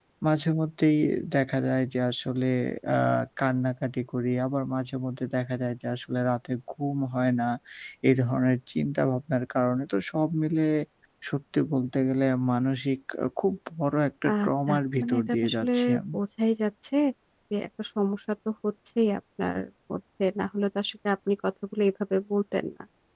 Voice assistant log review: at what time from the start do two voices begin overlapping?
14 s

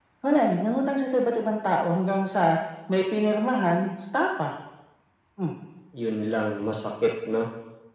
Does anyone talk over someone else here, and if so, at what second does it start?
none

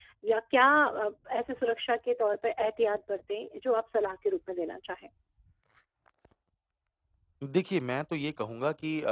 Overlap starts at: none

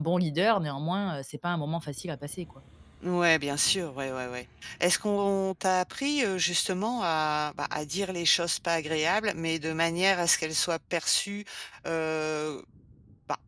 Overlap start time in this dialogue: none

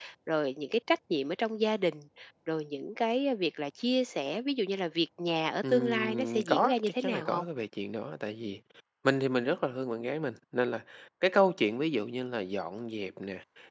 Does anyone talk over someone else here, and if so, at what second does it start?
6 s

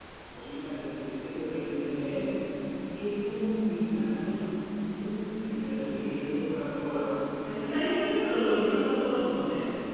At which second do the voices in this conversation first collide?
none

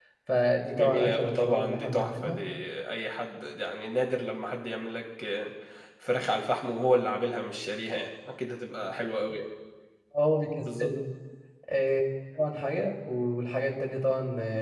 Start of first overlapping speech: 1 s

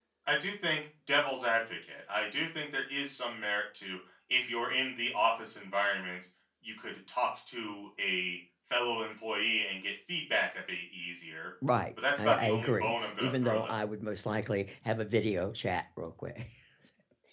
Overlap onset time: 12 s

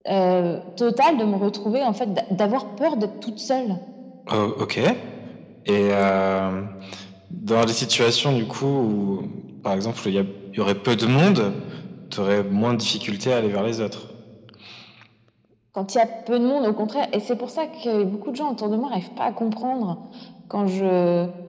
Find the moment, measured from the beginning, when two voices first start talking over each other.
none

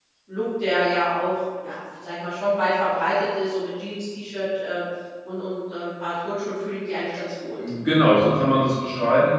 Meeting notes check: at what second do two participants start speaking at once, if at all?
none

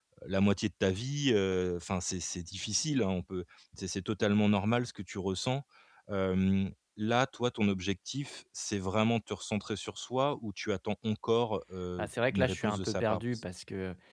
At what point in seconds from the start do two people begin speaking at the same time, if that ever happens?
12 s

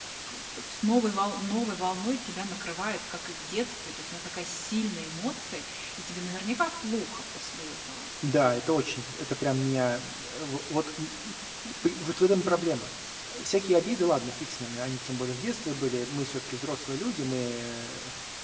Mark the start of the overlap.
none

